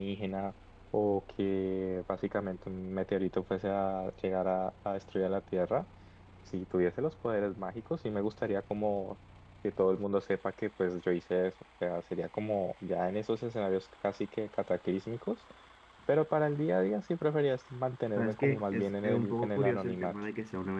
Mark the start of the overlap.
18.1 s

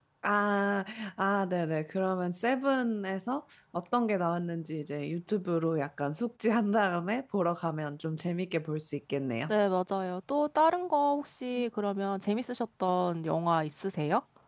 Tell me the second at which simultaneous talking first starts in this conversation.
none

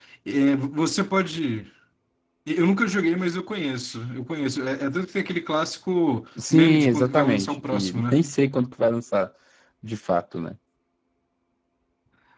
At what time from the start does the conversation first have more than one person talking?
6.4 s

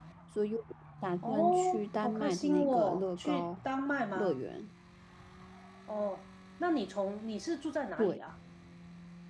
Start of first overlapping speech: 1.2 s

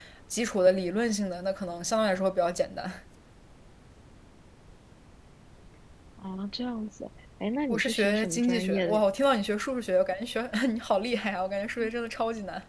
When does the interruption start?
7.7 s

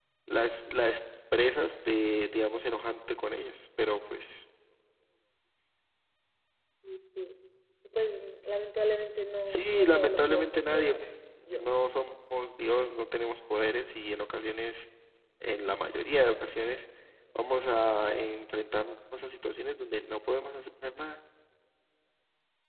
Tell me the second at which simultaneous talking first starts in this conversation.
9.4 s

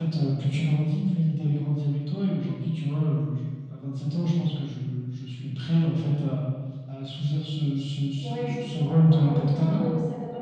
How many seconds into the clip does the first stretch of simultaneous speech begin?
8.2 s

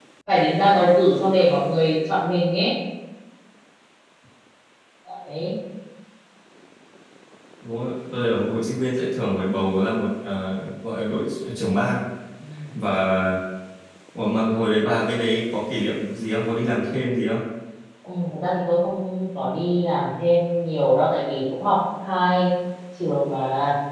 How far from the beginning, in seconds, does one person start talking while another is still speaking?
none

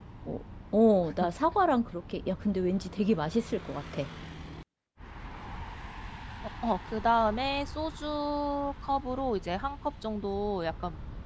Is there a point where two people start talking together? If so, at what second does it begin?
none

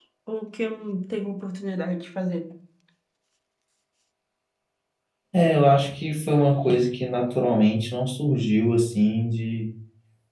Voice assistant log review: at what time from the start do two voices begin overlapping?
none

